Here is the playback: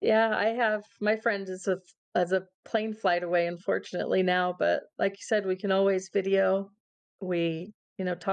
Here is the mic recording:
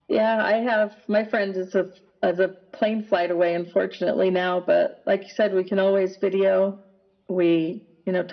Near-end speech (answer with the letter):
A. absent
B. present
A